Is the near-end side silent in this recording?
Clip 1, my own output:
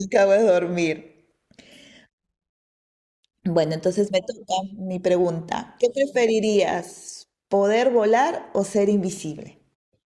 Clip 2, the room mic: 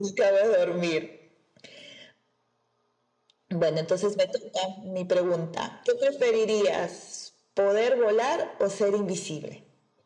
Yes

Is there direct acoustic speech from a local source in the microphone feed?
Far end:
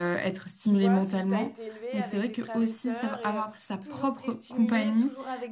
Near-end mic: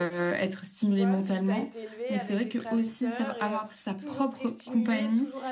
No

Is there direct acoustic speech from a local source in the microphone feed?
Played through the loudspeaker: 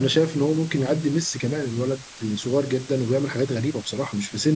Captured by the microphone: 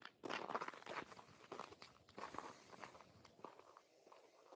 No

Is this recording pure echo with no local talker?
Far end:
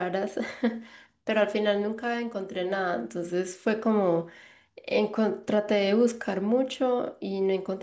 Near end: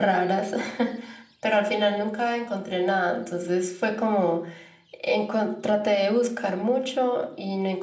Yes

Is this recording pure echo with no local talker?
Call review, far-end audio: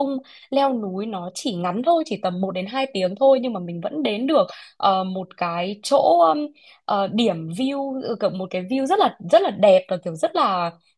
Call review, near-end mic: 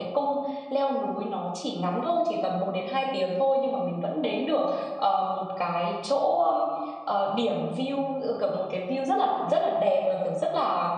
Yes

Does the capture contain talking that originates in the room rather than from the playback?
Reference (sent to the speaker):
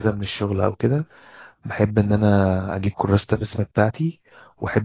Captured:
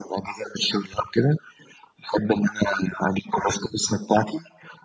No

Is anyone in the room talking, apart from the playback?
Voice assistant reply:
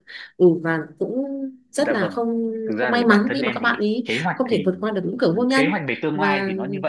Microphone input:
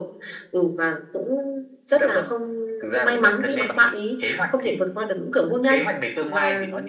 No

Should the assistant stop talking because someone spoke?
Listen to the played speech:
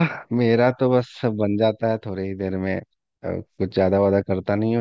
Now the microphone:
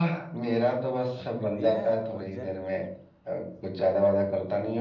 Yes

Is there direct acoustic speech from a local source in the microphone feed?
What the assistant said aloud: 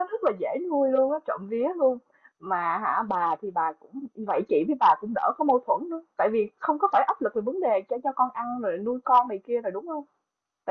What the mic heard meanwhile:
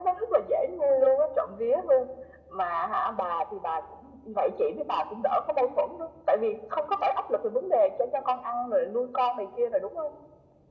No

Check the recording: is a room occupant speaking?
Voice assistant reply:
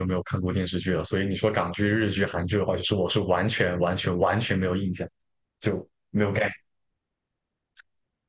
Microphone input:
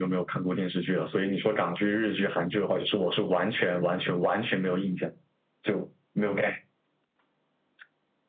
No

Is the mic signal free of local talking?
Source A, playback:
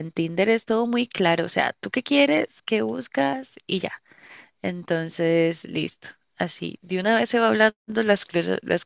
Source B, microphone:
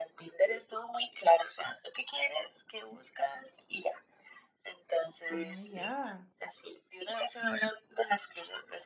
No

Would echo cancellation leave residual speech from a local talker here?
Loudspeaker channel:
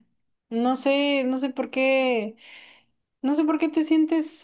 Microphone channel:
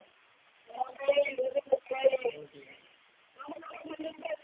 Yes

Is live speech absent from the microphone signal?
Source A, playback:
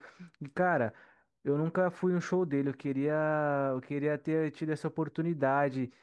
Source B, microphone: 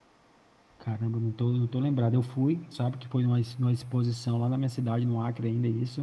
No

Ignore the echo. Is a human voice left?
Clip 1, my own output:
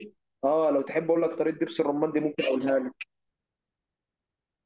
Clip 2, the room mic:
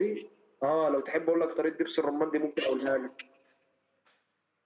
No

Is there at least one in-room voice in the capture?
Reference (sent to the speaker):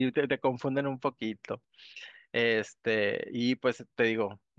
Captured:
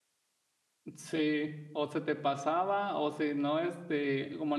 Yes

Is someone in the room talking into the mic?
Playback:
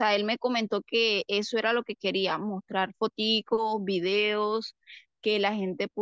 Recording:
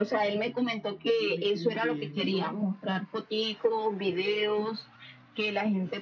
Yes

